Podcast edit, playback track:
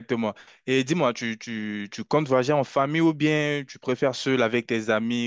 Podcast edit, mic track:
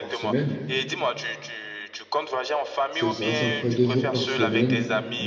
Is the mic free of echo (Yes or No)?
No